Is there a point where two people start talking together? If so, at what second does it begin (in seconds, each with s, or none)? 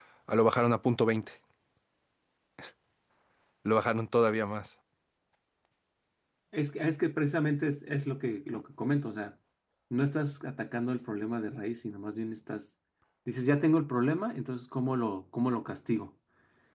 none